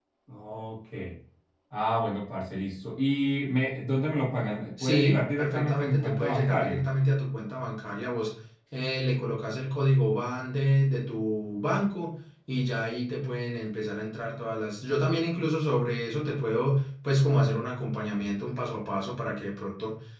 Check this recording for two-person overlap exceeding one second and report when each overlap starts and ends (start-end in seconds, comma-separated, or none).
4.8-6.8